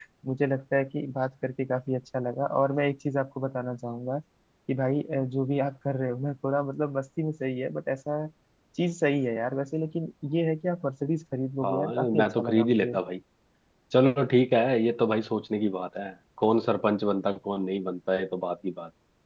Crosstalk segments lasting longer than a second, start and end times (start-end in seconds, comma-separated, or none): 11.6-13.0